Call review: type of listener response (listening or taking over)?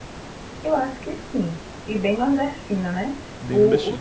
listening